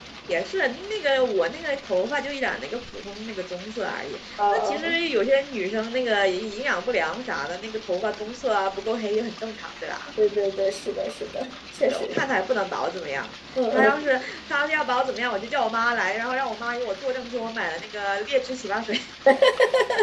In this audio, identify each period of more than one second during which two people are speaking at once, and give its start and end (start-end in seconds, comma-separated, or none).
none